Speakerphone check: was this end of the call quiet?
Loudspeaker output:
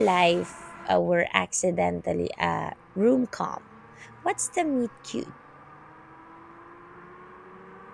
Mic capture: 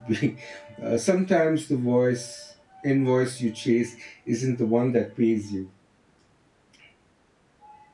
No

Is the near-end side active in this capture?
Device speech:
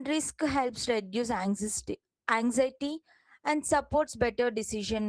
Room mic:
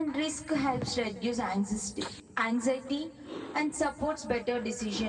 No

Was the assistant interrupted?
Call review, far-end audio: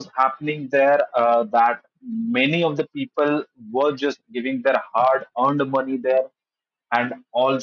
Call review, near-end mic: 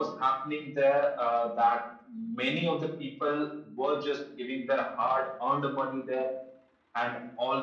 No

